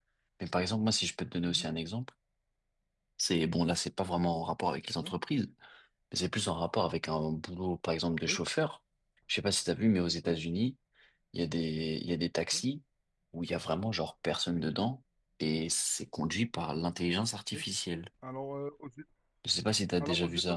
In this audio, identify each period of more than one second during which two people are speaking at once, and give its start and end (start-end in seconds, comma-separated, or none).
none